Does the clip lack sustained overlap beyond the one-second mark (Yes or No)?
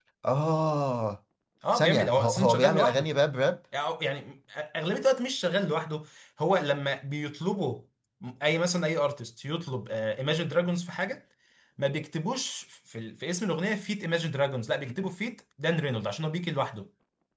No